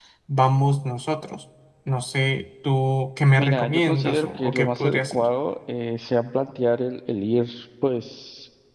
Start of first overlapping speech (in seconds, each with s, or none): 3.4 s